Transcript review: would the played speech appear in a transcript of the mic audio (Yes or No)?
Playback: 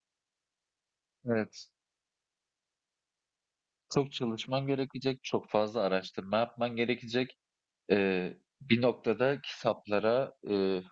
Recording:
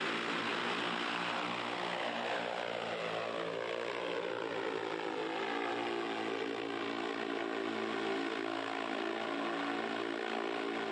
No